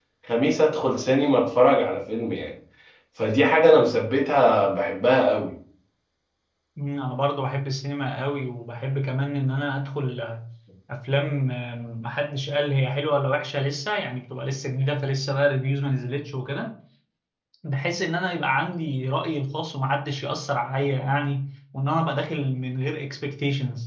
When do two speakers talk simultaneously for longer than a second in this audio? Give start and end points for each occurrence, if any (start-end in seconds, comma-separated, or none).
none